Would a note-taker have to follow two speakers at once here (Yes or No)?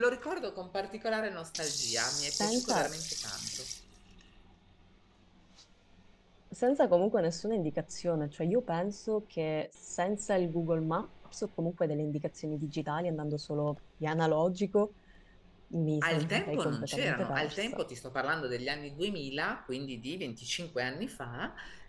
Yes